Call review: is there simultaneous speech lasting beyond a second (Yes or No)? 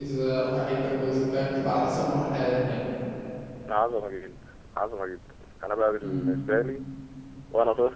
No